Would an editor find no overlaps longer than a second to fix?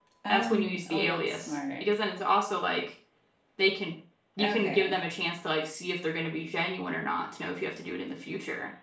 No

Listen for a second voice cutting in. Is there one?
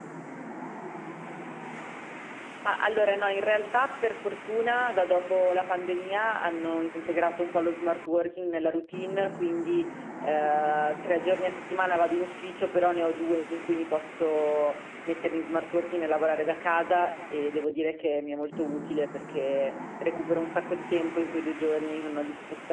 No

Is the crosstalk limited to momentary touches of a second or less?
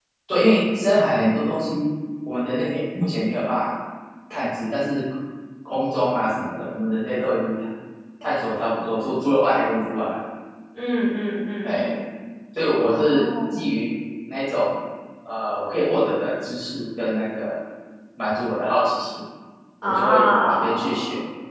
No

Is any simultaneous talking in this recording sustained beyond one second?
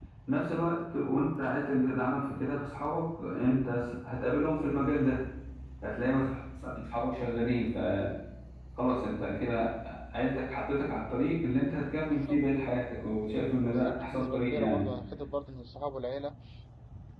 Yes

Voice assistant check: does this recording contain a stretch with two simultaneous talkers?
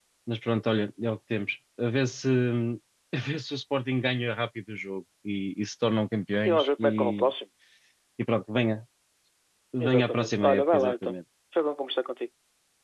Yes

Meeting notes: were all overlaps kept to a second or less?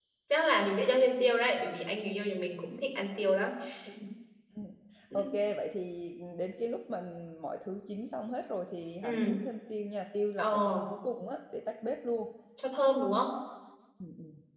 Yes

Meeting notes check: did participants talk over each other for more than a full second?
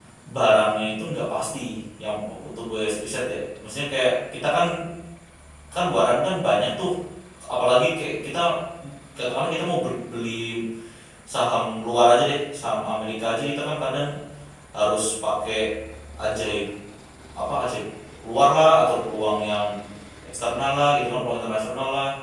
No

